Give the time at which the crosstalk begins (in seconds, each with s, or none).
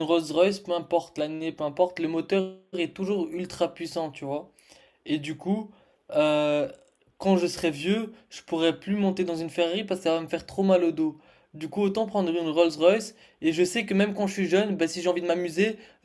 none